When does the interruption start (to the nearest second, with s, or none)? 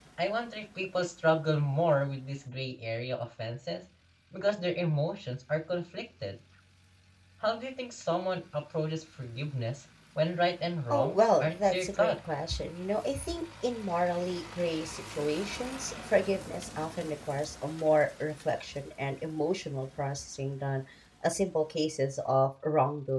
11 s